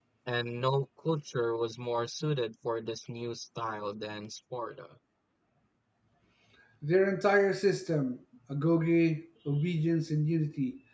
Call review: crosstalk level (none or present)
none